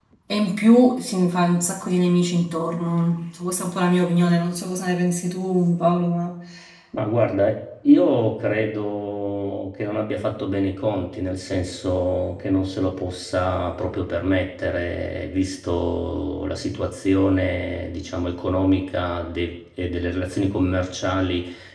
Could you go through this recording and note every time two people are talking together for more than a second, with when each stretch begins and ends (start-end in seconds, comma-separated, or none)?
none